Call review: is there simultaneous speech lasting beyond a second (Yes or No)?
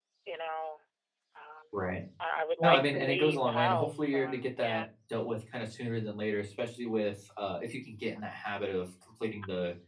Yes